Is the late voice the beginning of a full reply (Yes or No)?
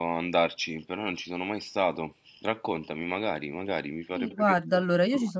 Yes